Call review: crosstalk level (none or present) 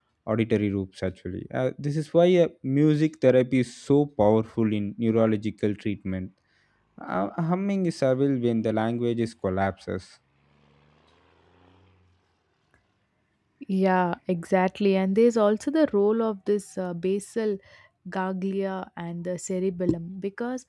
none